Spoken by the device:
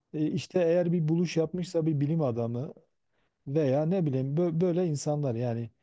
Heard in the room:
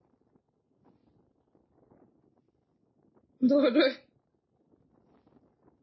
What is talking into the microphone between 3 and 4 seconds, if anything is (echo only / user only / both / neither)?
user only